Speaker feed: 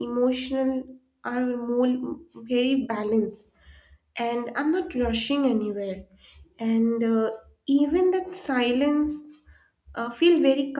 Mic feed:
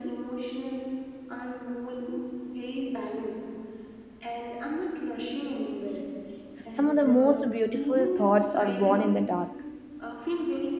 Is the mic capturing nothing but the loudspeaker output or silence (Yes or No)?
No